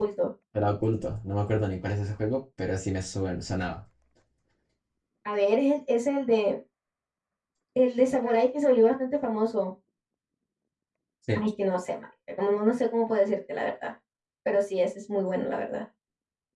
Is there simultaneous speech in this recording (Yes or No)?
No